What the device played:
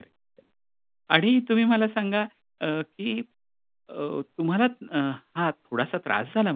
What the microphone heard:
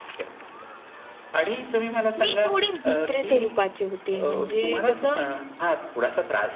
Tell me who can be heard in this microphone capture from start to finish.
both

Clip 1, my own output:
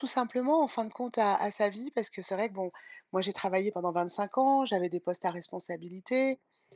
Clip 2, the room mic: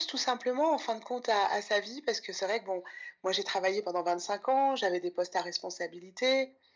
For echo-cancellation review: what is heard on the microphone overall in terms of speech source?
echo only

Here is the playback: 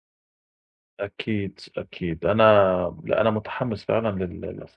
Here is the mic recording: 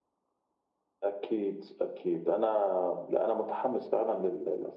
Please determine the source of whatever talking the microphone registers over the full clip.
echo only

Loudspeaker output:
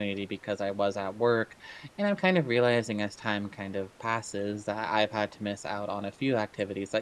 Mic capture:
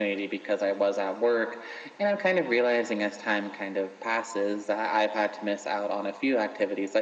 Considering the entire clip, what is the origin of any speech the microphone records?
echo only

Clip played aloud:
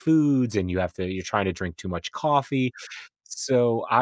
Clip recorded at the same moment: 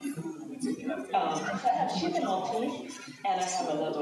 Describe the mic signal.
both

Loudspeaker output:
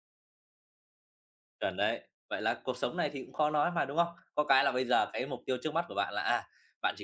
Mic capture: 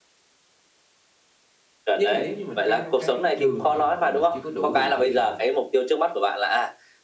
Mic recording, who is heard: both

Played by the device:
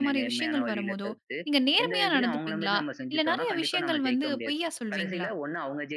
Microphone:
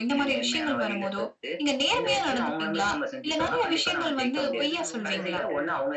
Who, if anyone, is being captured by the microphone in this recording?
both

